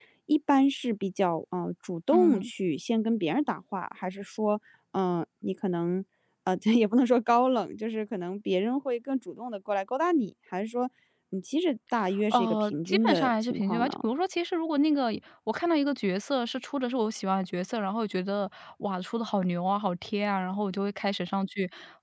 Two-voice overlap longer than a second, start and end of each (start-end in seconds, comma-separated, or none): 12.3-13.9